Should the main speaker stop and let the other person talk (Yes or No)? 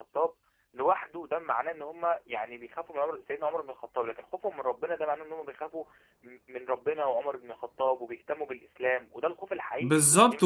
Yes